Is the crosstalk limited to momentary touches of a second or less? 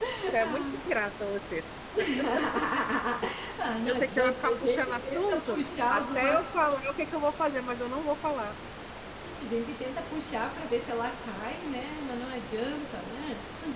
No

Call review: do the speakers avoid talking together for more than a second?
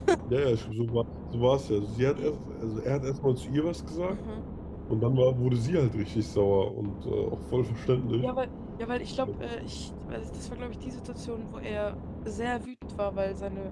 Yes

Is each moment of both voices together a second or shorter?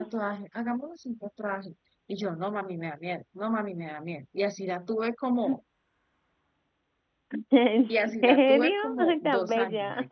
No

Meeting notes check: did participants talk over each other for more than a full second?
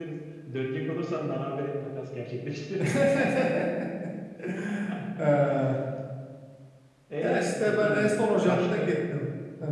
Yes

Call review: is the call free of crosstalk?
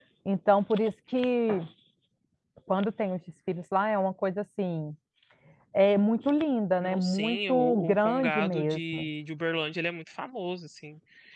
No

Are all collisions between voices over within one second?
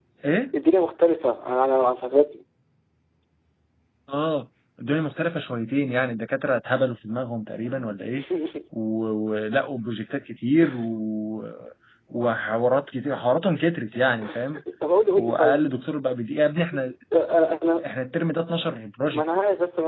Yes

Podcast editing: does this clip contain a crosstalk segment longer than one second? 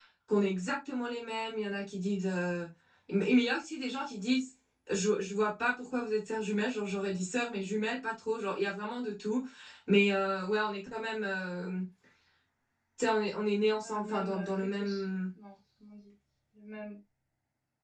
Yes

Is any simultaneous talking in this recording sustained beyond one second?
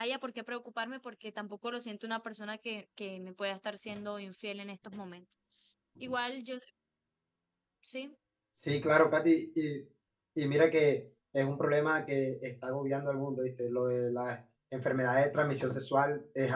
No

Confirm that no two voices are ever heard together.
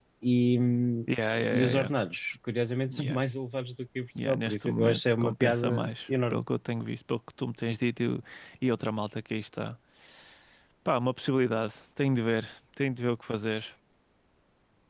No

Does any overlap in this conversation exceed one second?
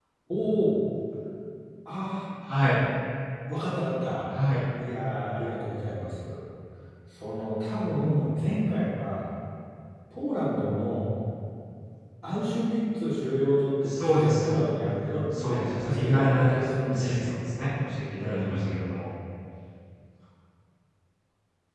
Yes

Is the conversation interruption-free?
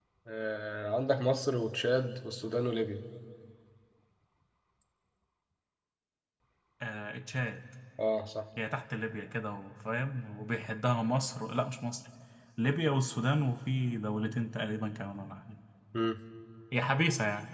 Yes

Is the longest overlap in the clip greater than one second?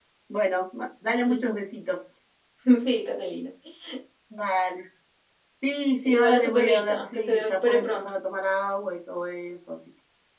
Yes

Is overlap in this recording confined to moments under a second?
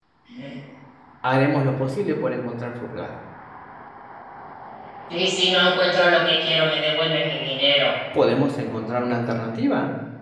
Yes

